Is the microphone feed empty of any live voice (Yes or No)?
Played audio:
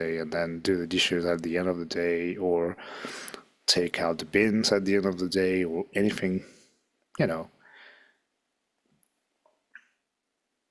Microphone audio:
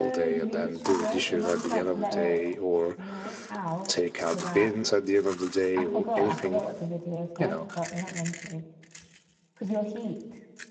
No